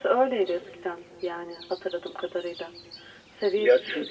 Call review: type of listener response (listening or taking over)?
listening